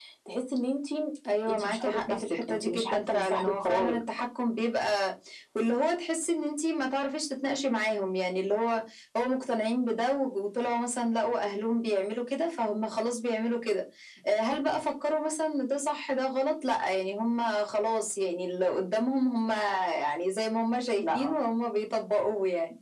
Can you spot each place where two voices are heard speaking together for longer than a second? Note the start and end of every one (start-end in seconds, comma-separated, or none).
1.5-4.0